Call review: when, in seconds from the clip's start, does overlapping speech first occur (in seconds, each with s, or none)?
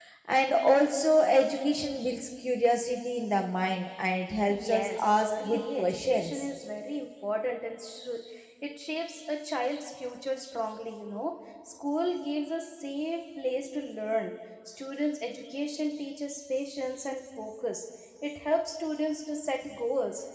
4.5 s